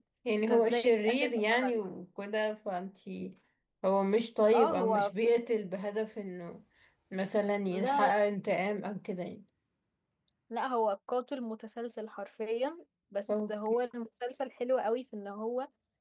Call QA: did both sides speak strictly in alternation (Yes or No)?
No